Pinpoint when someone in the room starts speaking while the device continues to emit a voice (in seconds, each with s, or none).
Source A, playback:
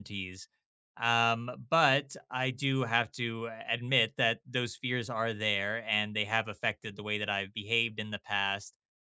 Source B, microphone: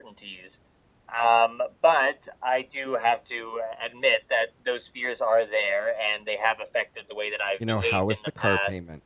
7.5 s